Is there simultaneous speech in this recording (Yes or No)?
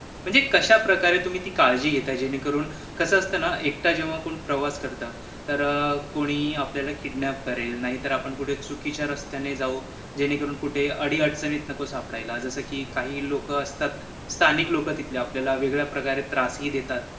No